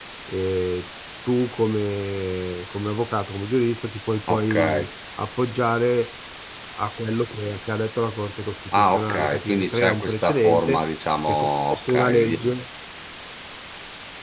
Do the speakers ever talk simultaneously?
Yes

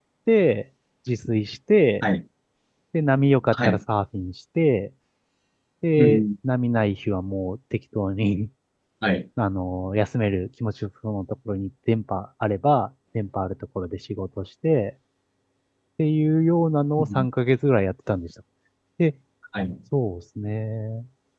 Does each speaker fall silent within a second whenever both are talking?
Yes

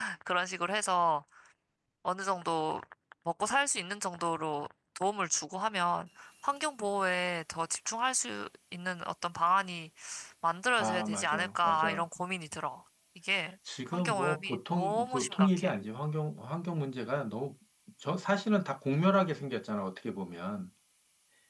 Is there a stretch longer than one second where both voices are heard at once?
Yes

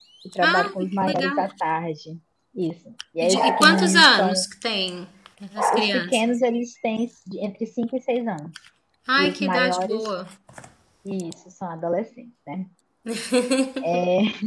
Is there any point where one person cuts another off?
Yes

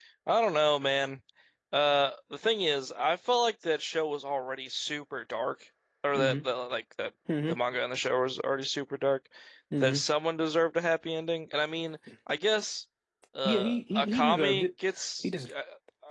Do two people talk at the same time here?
Yes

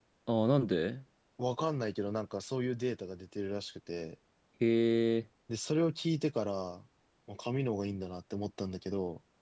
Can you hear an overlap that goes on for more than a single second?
No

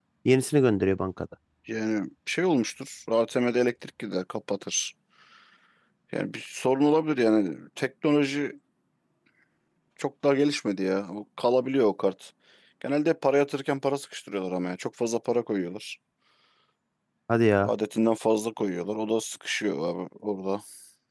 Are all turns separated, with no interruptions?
Yes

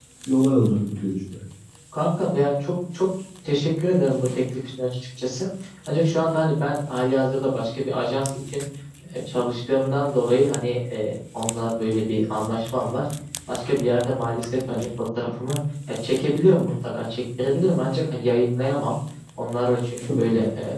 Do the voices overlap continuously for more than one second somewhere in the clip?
No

